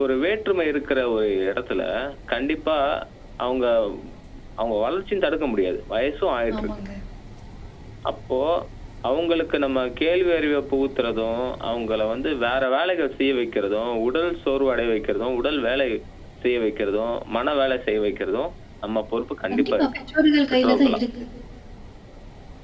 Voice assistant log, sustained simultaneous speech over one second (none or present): none